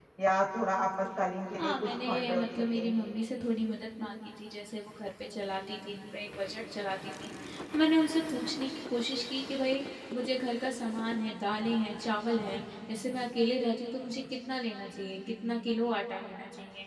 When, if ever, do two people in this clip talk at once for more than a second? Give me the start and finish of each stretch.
1.6-2.9

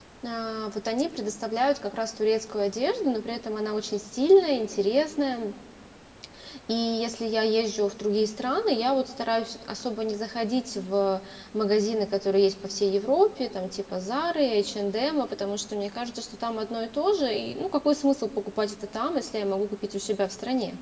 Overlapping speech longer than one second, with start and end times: none

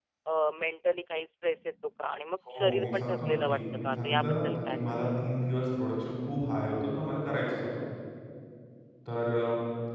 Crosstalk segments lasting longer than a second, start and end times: 2.5-5.1

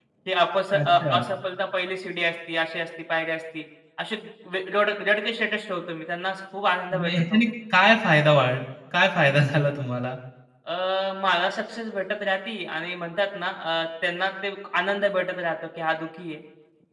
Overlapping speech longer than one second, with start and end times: none

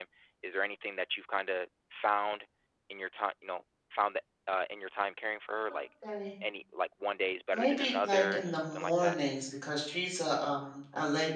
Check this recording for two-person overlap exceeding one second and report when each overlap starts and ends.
7.5-9.2

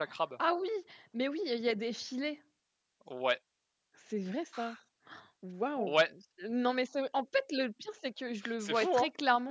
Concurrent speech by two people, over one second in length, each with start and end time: none

